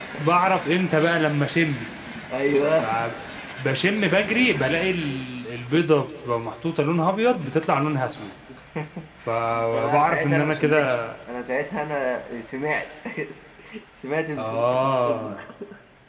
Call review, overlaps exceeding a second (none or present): present